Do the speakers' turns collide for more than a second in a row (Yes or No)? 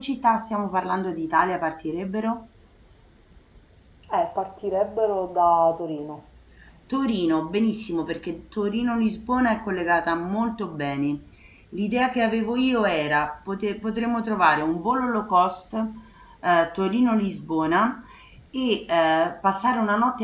No